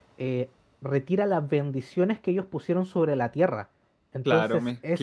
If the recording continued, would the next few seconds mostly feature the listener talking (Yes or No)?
Yes